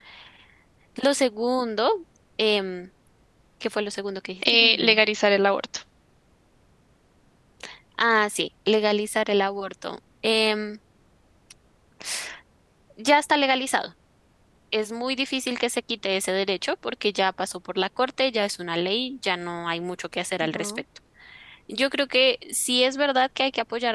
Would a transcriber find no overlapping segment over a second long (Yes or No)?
Yes